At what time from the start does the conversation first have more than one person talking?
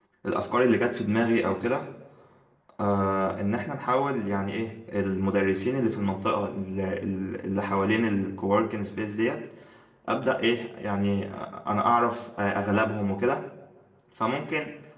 none

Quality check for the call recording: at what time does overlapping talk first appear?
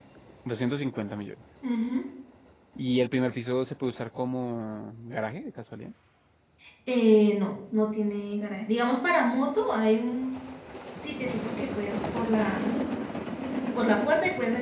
none

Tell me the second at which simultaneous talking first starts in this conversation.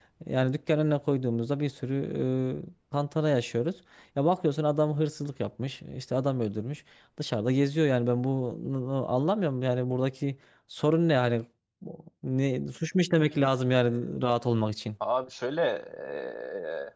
none

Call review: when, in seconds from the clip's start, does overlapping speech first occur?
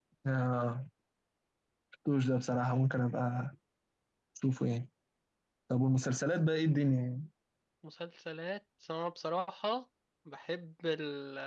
none

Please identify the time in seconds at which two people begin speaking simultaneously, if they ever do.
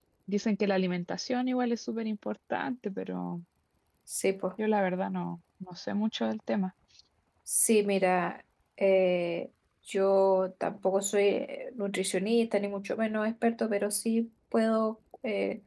none

